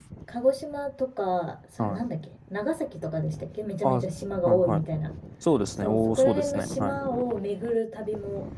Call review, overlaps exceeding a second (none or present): present